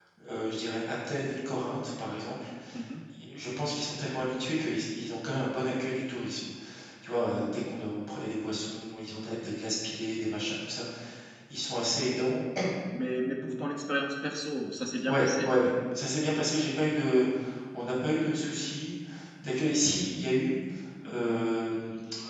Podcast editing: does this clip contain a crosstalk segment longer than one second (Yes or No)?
No